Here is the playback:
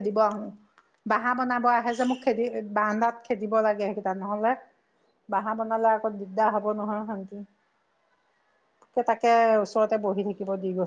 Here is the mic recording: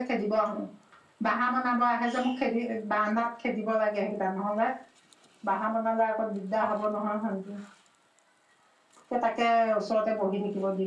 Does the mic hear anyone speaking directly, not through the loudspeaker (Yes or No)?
No